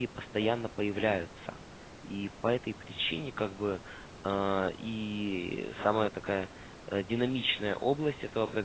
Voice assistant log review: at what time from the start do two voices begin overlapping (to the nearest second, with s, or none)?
none